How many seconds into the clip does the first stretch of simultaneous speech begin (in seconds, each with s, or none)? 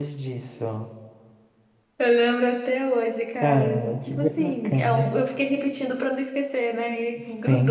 3.4 s